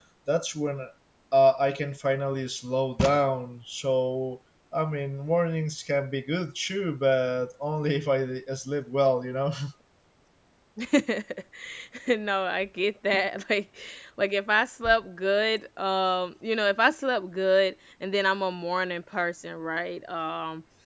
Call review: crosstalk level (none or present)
none